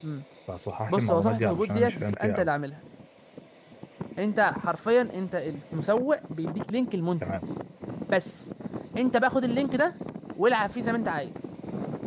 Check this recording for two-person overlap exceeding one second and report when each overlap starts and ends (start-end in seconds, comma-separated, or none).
0.9-2.5